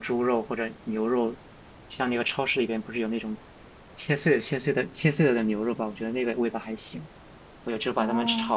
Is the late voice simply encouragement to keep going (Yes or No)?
Yes